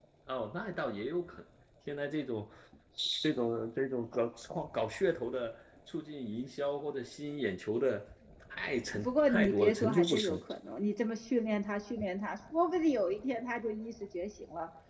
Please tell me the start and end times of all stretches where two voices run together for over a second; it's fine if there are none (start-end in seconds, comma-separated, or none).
8.9-10.4